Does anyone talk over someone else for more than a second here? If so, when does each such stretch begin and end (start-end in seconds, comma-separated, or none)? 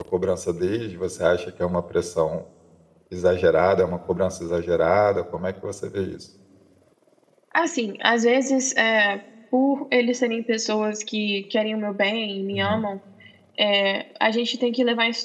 none